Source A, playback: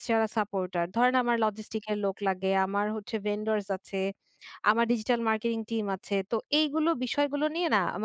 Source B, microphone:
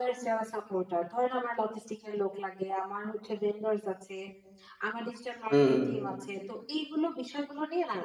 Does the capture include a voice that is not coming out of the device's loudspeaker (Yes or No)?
Yes